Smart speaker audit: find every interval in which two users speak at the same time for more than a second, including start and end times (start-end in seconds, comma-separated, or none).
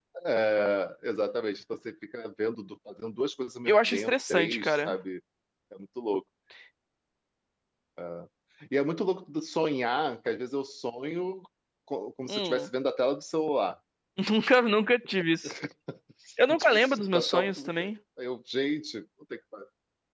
3.7-5.0, 16.6-17.9